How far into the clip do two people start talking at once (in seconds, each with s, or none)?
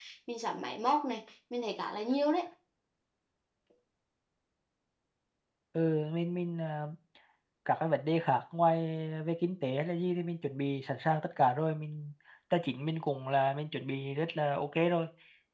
none